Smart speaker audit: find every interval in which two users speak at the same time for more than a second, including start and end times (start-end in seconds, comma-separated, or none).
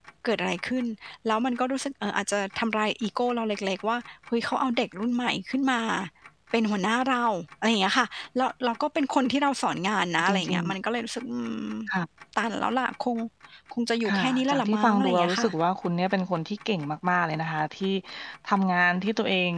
14.1-15.5